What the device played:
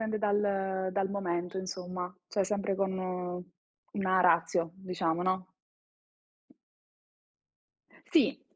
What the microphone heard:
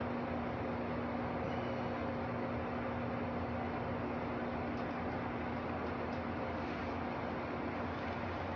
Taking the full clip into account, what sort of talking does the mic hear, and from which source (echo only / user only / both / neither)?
neither